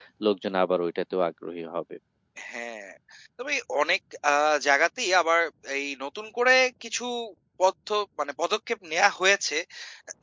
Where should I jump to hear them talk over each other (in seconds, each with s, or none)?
none